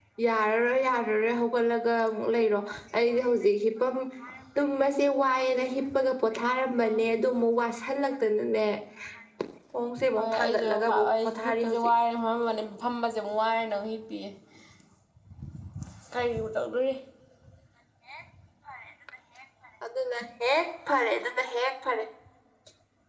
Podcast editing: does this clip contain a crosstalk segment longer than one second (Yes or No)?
Yes